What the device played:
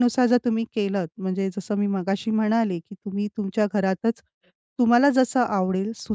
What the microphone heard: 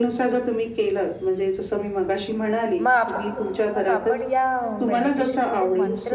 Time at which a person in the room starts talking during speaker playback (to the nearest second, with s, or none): 3 s